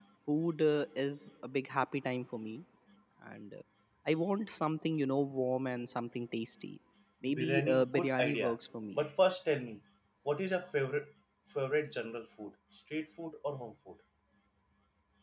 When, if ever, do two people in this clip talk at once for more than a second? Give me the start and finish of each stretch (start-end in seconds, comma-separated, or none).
7.3-8.6